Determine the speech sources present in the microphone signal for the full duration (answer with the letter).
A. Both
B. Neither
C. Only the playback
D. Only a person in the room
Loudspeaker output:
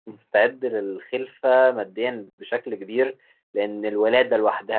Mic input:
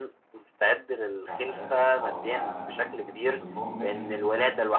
A